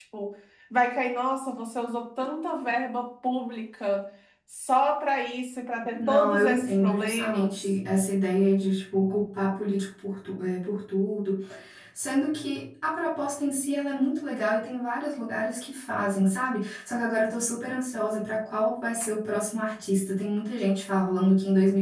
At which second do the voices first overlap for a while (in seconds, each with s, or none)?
5.9 s